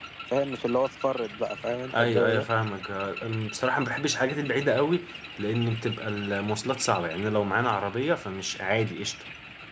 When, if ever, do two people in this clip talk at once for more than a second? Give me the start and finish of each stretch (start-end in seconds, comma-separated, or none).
none